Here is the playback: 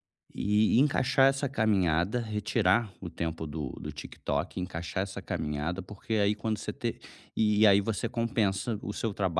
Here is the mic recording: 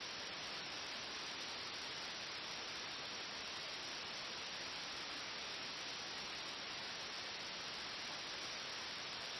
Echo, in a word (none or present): none